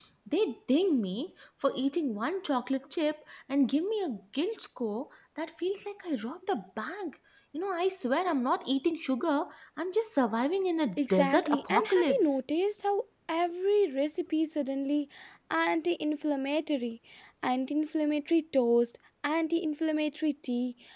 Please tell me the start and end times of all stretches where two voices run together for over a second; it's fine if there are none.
11.0-12.4

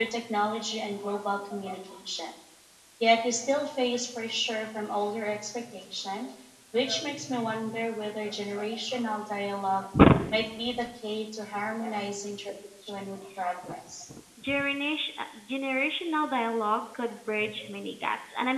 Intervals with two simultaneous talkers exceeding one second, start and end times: none

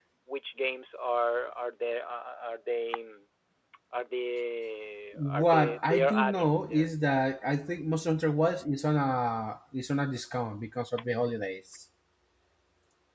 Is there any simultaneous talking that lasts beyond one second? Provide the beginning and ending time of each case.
5.3-6.9

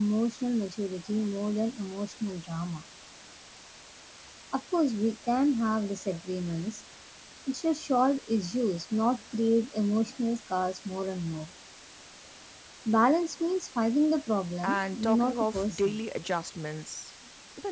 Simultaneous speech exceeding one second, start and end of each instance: 14.6-16.0

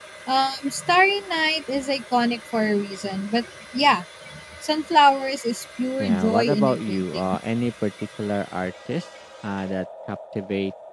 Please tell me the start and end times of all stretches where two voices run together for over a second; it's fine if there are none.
6.0-7.4

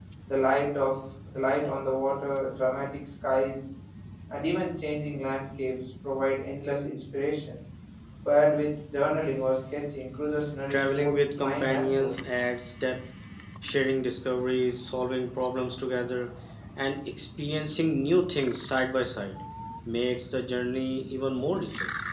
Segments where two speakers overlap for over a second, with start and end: 10.7-12.1

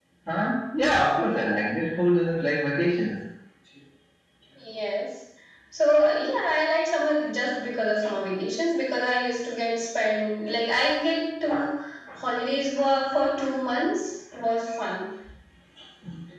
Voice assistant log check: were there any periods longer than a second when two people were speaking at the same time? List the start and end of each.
none

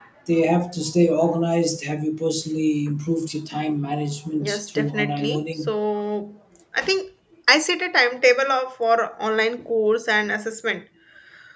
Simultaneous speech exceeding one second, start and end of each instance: 4.4-5.7

